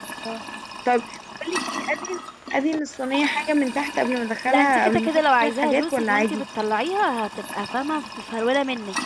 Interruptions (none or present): present